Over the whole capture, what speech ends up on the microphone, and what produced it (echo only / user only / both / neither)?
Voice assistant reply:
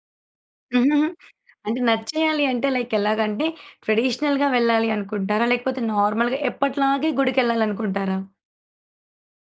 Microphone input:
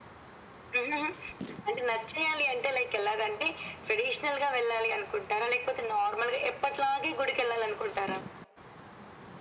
echo only